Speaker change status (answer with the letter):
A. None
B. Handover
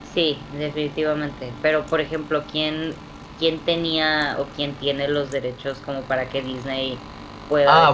B